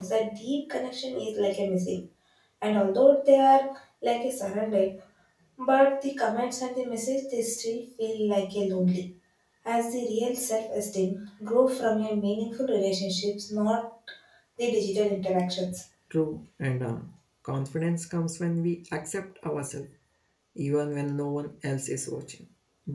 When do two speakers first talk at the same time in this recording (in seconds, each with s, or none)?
none